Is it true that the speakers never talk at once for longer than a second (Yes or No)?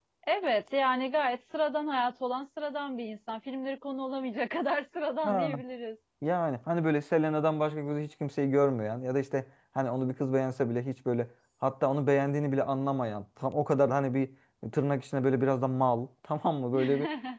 Yes